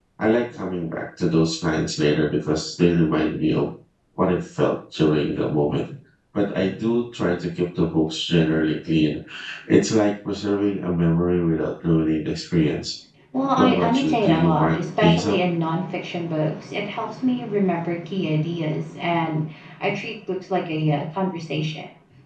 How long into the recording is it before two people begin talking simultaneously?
13.6 s

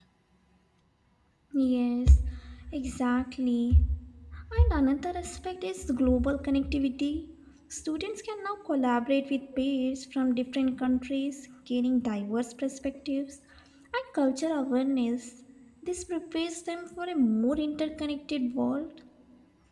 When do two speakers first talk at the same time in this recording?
none

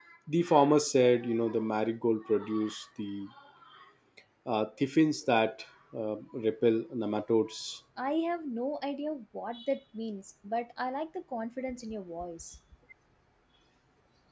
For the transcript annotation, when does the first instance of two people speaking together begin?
none

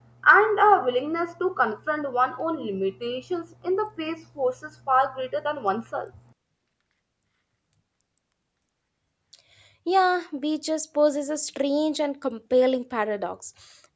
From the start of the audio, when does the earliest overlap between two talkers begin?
none

